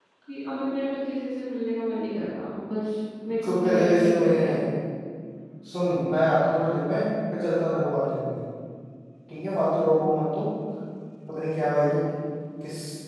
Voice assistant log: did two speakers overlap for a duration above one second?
Yes, from 3.4 s

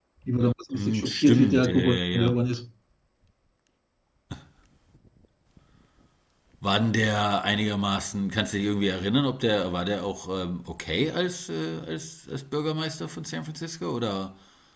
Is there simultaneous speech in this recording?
Yes, from 0.7 s

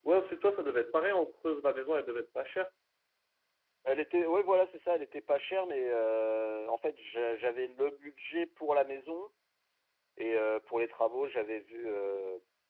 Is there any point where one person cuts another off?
No

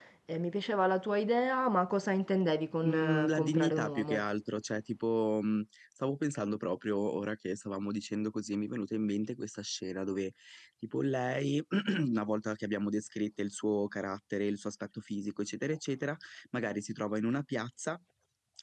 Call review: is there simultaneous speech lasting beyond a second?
Yes, from 2.8 s

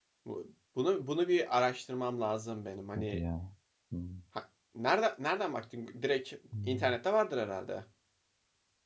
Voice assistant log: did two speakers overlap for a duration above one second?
No

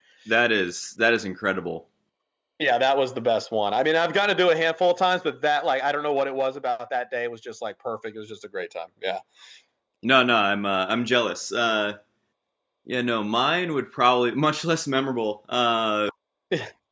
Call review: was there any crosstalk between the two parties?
No

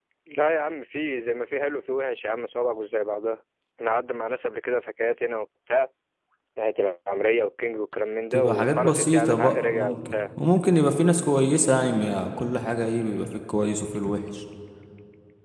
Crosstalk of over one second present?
Yes, from 8.3 s

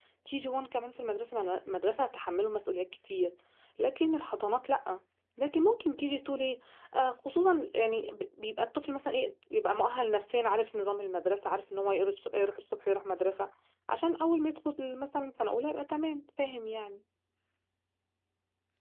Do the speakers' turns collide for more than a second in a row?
No

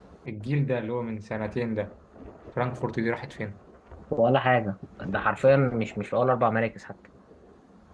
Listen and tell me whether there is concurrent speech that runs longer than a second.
No

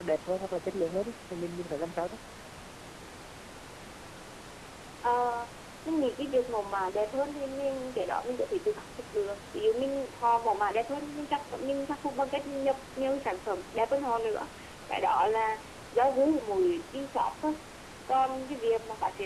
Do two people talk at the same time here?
No

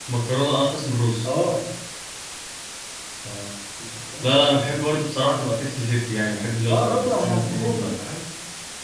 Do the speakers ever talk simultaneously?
Yes, from 6.7 s

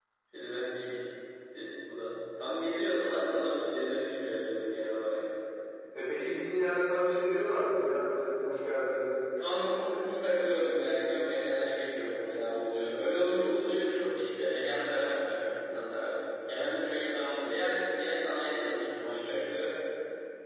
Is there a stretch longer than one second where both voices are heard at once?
No

